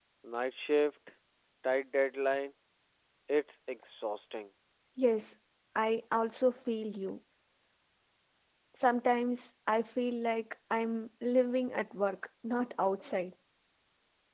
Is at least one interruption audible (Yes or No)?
No